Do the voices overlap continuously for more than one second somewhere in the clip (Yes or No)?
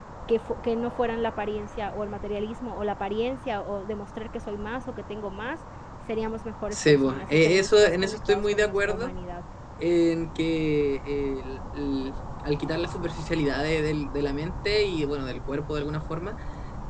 Yes